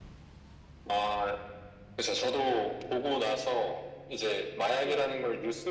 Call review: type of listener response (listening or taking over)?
listening